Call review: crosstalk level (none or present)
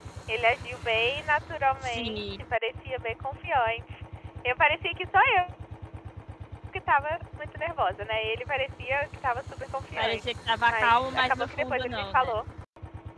present